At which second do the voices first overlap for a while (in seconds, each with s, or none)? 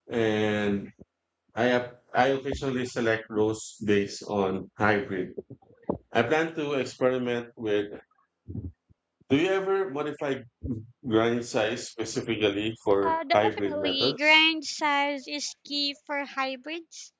12.9 s